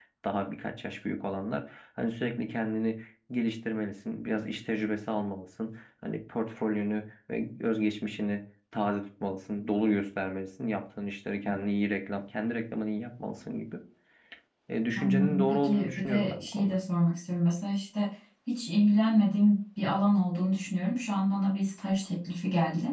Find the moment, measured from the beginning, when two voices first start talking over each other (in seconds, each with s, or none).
15.0 s